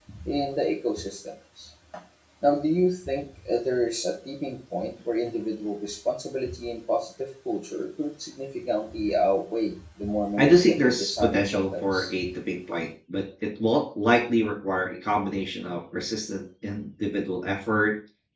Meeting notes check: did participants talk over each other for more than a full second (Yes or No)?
Yes